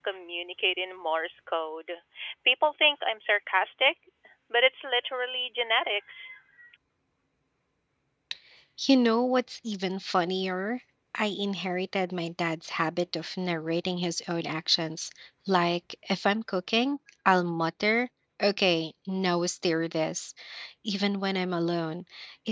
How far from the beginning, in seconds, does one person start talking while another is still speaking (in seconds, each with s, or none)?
none